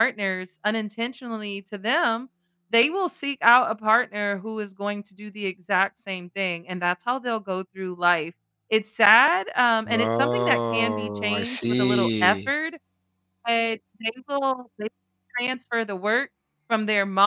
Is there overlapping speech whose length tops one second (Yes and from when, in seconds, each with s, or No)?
Yes, from 9.9 s